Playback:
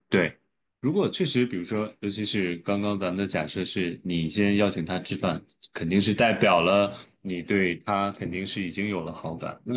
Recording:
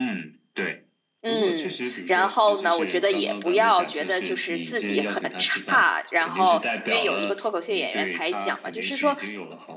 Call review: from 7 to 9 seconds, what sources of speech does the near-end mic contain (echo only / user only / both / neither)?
both